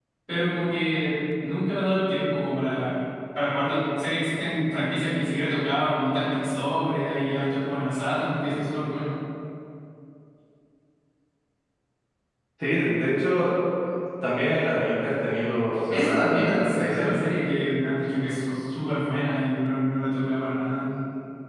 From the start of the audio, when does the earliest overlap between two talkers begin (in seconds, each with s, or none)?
15.9 s